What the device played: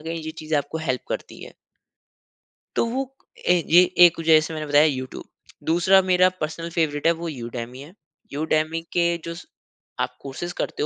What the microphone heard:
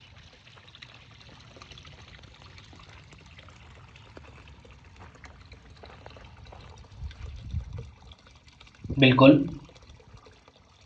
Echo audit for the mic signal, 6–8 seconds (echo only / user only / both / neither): neither